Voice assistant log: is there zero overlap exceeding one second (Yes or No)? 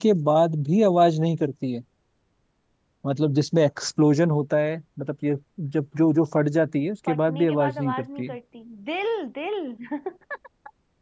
No